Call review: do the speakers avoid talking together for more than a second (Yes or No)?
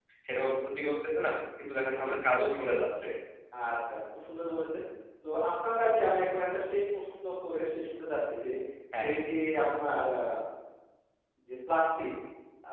Yes